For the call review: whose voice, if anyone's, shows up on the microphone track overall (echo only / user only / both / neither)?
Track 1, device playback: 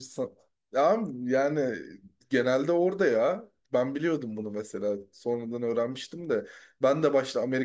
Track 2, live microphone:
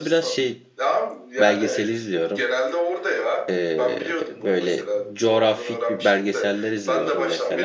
both